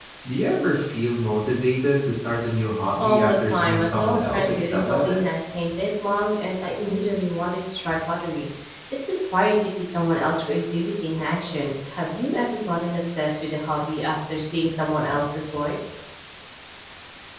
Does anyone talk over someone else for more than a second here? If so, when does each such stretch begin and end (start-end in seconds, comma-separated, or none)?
3.0-5.2